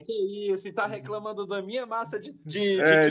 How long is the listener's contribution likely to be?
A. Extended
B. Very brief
A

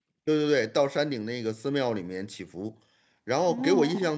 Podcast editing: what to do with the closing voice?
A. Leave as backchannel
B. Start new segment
A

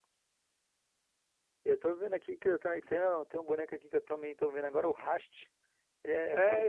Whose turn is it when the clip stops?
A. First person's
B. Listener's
B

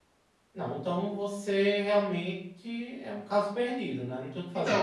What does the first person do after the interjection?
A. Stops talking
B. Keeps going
A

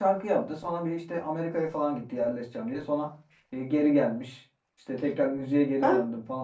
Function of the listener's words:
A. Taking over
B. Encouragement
B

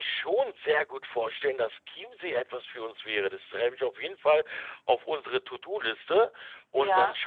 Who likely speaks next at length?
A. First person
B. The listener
A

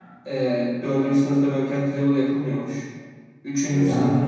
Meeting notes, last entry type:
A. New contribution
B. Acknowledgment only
B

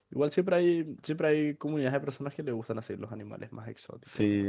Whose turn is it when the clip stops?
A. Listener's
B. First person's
A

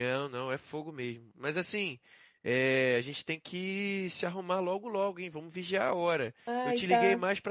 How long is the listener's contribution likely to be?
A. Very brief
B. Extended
A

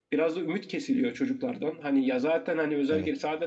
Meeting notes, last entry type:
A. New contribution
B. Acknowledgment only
B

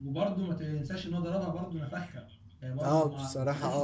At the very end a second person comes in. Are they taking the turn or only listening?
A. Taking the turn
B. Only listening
A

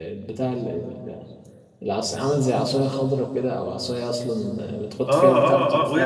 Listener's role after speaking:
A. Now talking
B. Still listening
A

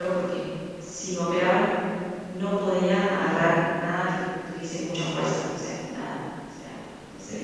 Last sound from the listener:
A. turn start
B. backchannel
A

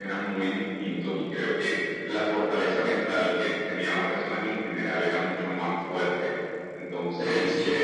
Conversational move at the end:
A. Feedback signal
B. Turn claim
A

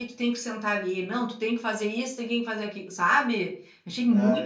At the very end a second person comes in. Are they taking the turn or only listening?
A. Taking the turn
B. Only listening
A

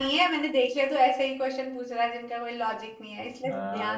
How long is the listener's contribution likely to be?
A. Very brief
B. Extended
B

